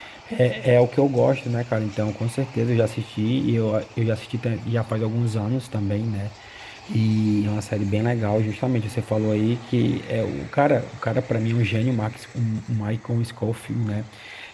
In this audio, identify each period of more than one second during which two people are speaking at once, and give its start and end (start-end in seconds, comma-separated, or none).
none